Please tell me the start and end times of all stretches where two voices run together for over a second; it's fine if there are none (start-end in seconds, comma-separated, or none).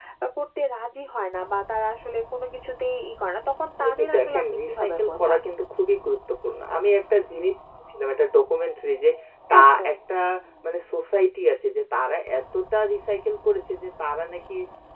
3.8-5.4